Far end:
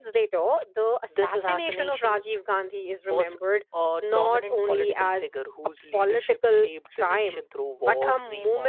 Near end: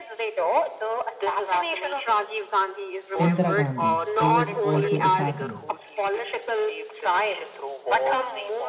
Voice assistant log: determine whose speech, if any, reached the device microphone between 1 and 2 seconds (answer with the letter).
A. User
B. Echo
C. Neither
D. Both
B